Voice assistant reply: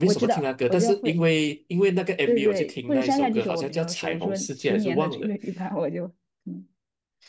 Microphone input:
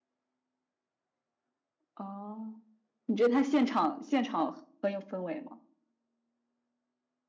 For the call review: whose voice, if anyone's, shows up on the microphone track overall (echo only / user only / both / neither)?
user only